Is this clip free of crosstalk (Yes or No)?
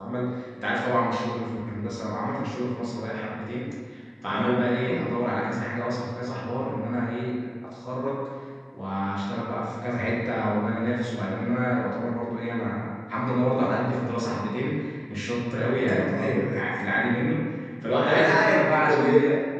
No